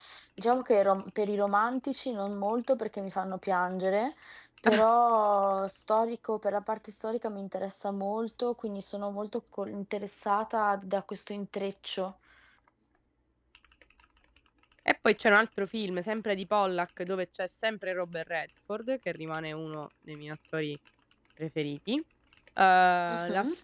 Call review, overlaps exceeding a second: none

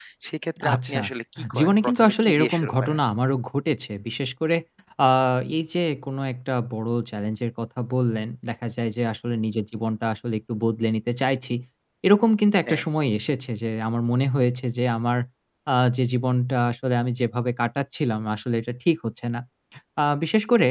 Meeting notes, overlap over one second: present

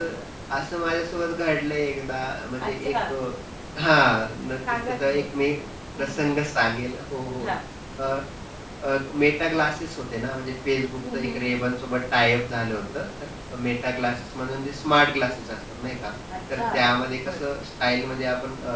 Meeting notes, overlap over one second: none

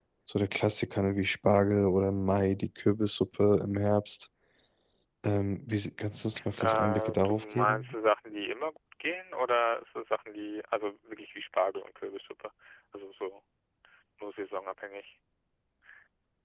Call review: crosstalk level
present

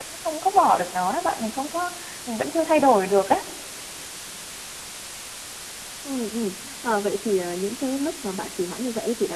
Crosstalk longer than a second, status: none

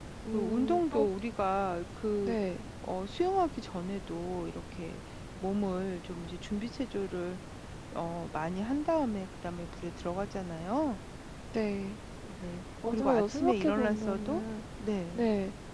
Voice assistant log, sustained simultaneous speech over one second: present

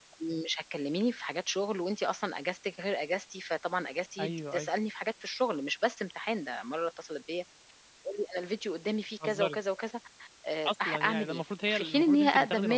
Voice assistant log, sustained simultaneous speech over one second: present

